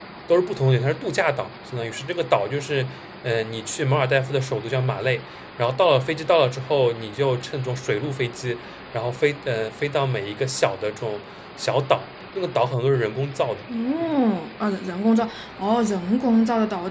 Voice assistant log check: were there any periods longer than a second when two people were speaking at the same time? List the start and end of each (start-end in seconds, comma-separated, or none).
none